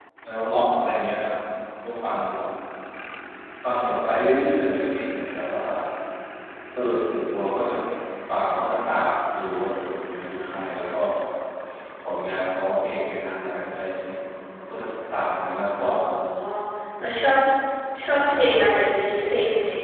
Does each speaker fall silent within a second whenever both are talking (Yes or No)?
Yes